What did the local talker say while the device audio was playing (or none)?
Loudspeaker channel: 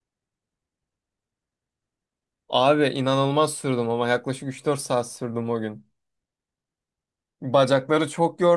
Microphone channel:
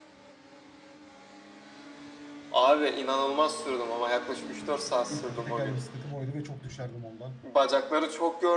İlk iki tekerli bisikletim oydu ve çok düşerdim ondan.